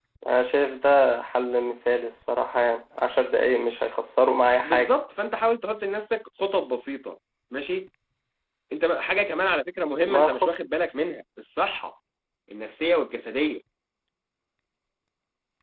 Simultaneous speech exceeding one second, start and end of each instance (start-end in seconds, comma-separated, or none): none